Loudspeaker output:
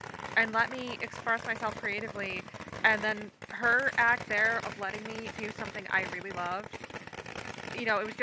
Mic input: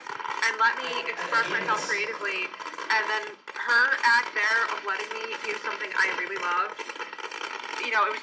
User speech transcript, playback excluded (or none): I, I again, that's